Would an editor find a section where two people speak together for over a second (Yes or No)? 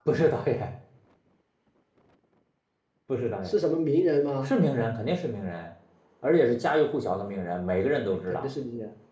No